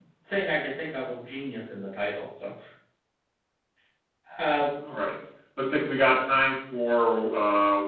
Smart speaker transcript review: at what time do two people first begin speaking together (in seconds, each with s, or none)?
none